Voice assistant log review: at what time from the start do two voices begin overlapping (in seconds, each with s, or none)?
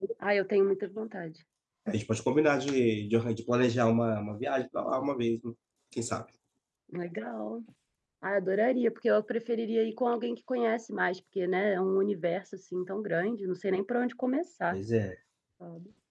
none